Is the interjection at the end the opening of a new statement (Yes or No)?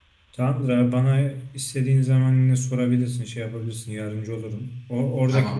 No